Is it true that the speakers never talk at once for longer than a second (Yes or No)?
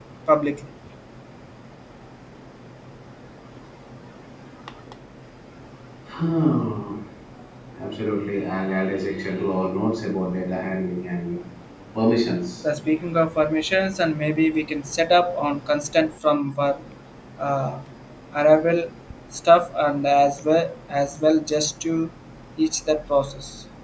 Yes